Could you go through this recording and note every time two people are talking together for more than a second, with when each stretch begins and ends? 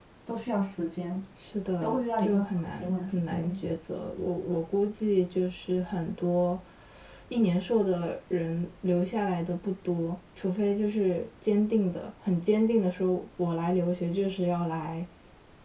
1.8-3.5

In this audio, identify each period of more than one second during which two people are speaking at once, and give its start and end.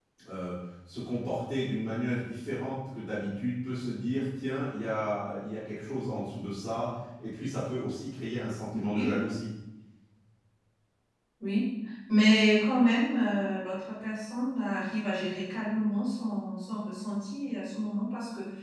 none

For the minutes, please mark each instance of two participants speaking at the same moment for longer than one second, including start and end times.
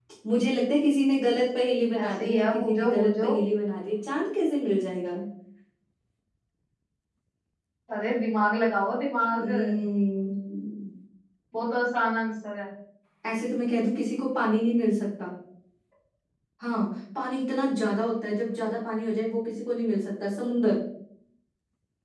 2.0-3.3

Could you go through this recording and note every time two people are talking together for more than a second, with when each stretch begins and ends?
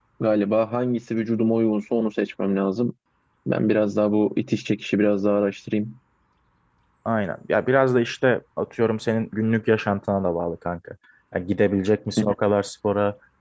none

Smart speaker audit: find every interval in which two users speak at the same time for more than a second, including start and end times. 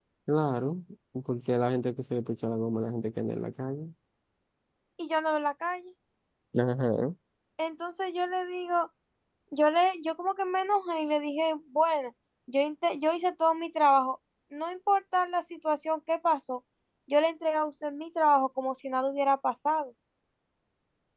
none

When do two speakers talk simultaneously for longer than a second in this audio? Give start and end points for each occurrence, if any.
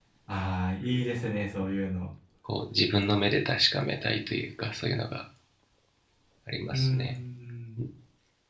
none

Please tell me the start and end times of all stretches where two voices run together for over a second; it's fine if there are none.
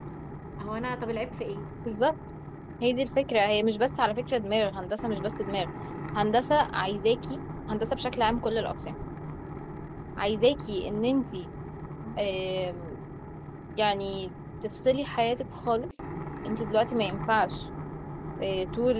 none

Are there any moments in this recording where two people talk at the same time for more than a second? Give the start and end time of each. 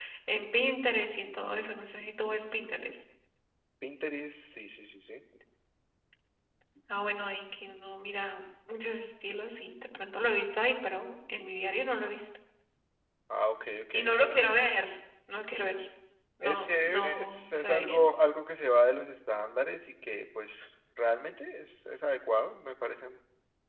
16.4-18.0

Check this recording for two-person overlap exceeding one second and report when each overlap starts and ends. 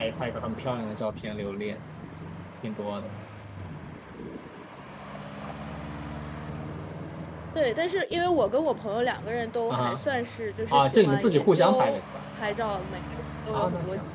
10.7-12.0

